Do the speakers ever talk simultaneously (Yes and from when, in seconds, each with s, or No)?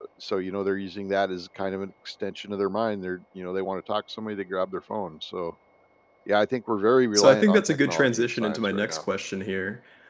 Yes, from 7.1 s